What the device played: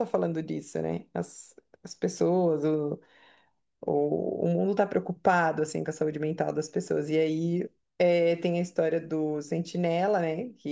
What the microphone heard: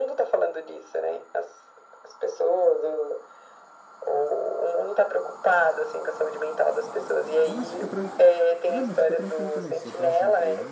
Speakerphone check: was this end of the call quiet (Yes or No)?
No